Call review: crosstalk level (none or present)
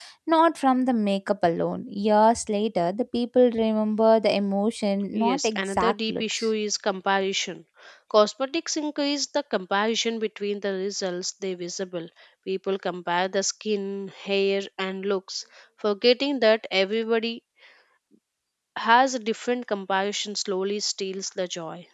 present